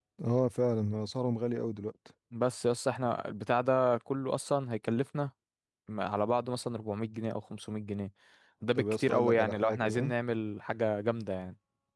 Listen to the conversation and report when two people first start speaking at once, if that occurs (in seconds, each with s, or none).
8.8 s